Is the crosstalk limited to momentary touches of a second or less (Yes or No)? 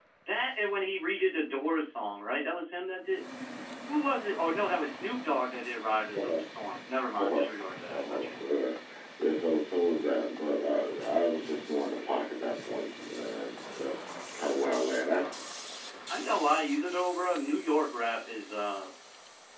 Yes